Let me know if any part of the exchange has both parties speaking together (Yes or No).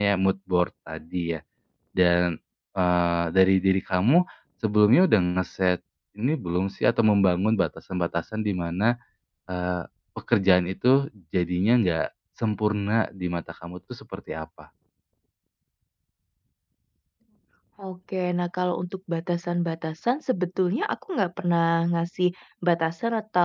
No